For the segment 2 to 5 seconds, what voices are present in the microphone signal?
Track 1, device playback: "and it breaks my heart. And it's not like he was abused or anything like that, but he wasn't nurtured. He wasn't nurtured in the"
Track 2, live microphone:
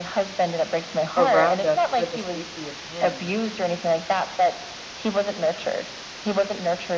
both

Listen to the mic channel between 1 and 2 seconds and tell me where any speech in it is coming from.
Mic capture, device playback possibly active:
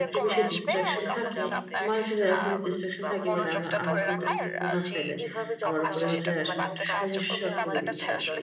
both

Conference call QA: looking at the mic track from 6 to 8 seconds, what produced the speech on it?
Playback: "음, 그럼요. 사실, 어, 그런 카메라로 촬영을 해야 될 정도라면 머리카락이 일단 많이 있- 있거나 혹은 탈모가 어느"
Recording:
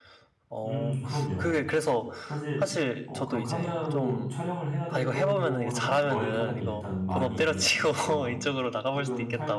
both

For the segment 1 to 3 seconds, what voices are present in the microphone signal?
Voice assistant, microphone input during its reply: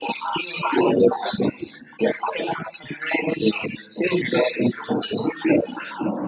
echo only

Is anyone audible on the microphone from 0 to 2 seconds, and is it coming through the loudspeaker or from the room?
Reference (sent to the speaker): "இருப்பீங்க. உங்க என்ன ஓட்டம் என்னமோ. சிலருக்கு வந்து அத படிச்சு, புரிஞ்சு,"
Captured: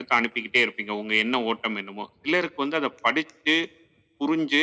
echo only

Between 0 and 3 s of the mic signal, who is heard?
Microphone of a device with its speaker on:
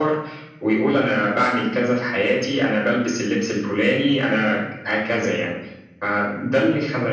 echo only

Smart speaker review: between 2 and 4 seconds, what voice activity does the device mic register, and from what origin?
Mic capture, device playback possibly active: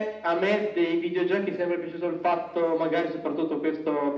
echo only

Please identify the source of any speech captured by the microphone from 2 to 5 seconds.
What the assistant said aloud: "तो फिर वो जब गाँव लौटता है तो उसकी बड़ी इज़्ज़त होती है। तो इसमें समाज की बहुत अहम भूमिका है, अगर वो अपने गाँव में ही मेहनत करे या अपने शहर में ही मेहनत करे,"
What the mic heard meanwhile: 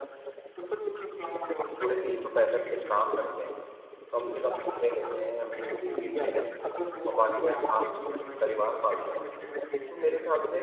both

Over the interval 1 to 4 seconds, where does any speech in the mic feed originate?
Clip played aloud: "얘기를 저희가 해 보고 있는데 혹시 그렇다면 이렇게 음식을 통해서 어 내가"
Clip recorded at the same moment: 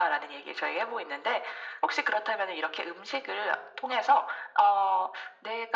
echo only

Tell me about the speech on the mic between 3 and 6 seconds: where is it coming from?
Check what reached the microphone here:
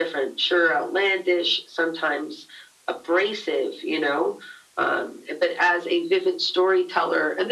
echo only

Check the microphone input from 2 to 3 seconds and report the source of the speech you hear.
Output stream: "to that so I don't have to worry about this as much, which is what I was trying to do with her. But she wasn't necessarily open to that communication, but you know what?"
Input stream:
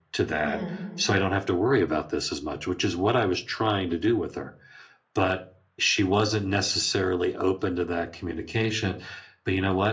echo only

